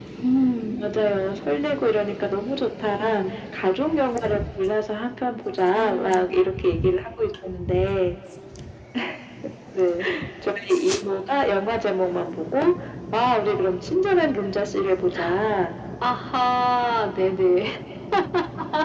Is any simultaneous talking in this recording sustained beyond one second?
No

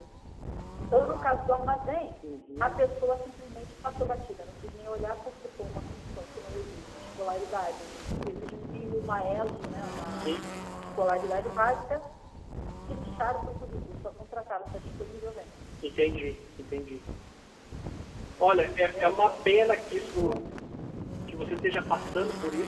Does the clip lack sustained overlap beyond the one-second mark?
No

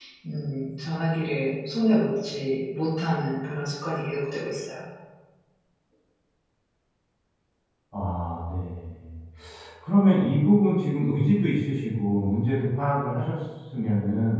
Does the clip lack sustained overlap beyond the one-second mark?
Yes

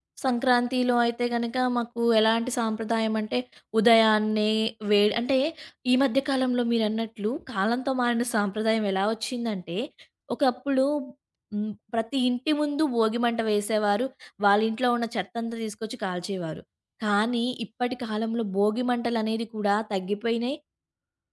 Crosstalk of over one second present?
No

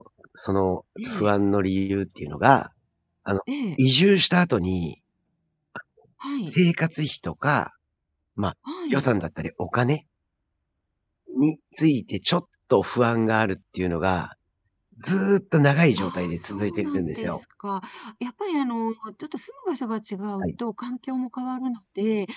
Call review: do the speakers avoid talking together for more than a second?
No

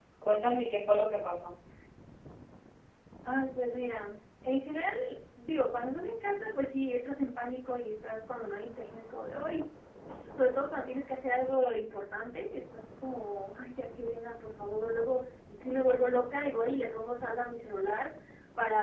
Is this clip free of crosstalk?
Yes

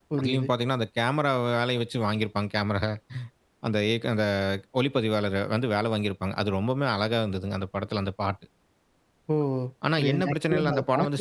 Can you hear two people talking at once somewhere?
Yes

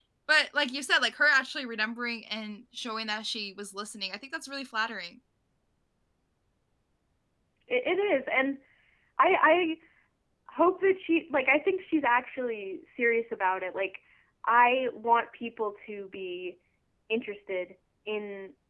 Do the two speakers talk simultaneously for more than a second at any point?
No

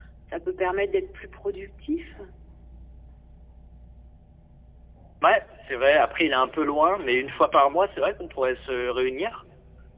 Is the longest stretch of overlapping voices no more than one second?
Yes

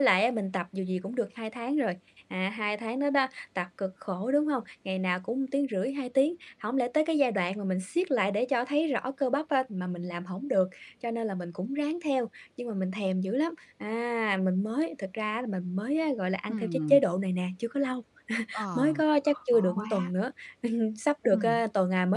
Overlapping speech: Yes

